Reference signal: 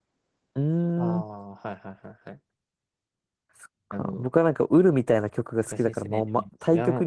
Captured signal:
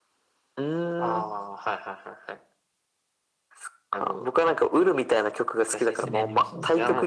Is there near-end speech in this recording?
Yes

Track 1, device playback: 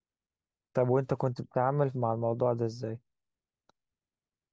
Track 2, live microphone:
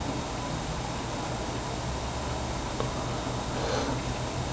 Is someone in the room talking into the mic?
No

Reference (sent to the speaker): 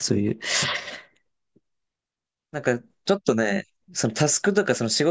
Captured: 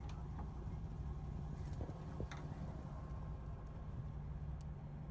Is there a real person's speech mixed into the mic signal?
No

